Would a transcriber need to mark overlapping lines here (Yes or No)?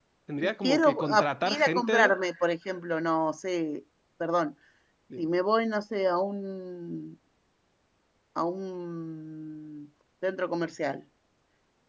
Yes